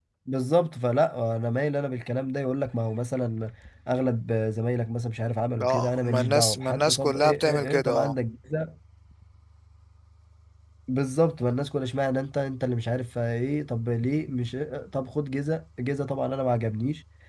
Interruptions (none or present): present